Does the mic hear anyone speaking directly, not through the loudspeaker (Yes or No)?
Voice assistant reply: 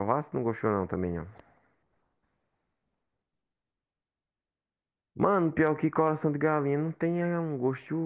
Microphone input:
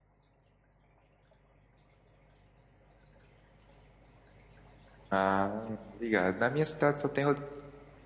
Yes